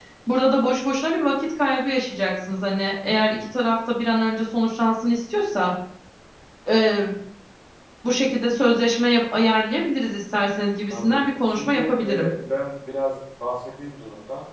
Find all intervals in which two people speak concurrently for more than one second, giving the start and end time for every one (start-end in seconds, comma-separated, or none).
10.9-12.3